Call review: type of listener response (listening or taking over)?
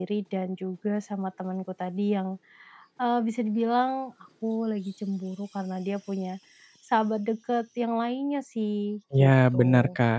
taking over